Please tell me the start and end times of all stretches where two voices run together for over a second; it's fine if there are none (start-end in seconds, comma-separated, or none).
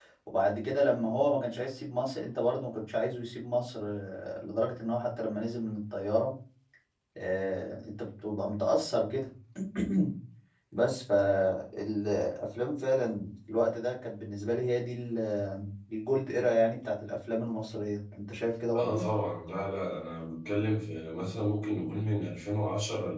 none